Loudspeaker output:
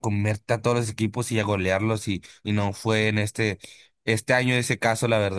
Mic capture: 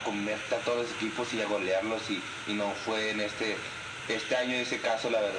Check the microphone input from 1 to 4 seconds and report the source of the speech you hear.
echo only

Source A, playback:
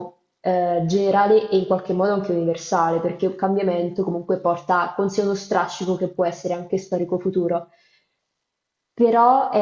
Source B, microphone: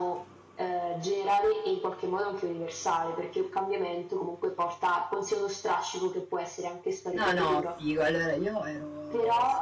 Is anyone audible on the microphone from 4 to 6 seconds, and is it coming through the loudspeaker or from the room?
echo only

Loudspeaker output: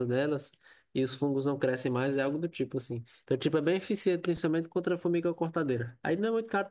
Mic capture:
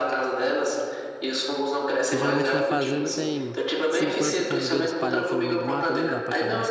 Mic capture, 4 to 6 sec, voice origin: both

